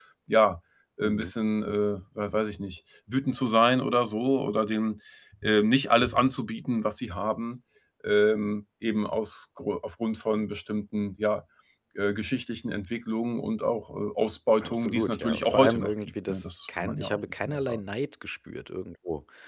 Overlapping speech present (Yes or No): Yes